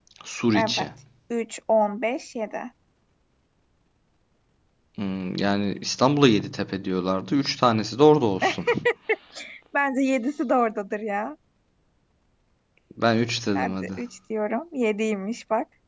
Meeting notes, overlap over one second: none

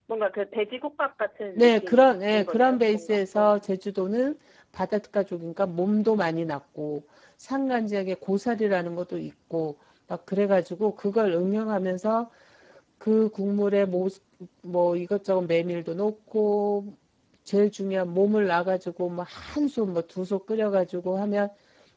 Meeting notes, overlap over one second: present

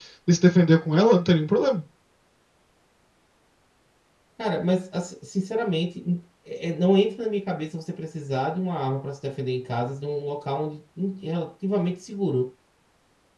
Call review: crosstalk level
none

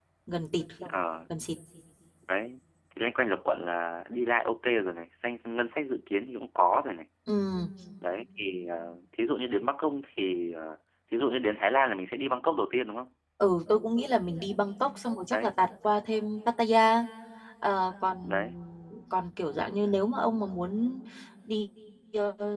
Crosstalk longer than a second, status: none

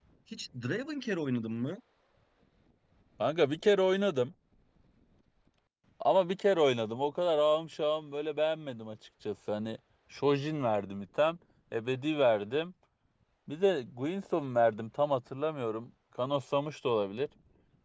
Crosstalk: none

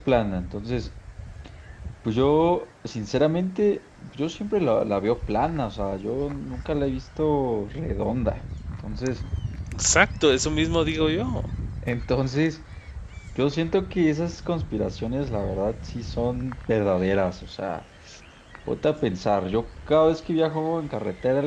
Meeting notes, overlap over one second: none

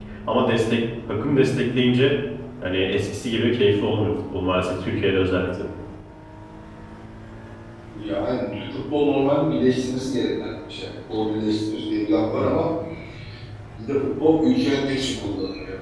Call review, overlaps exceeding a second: none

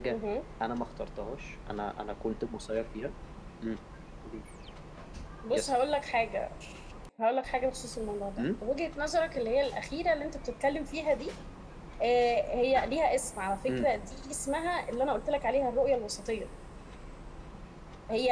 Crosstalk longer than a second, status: none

